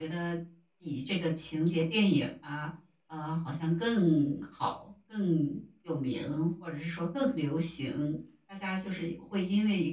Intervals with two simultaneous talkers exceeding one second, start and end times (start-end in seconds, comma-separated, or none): none